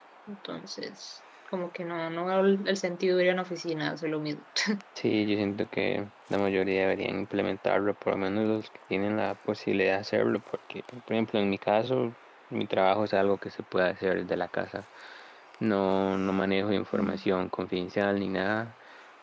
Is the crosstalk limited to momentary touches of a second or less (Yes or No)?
Yes